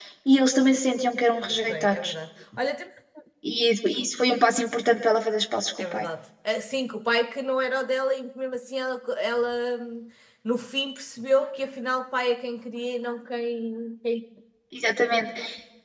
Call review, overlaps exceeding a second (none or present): none